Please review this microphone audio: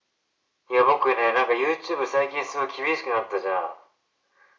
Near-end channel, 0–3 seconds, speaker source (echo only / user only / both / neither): echo only